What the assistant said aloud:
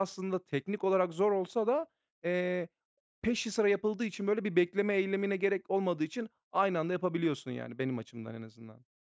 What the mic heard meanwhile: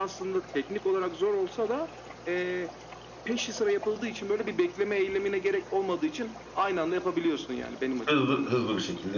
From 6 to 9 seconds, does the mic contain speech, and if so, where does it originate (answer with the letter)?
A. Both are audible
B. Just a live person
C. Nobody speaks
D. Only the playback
A